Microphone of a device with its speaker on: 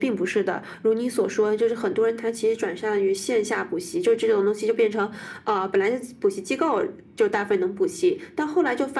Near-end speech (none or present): none